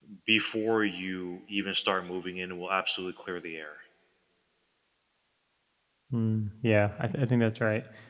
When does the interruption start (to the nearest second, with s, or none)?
none